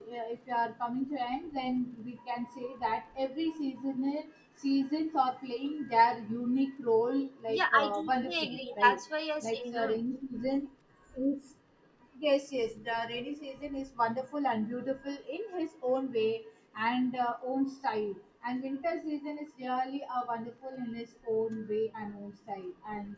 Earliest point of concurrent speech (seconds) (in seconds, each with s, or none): 7.5 s